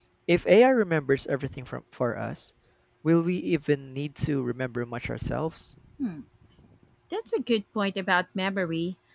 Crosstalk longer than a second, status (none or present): none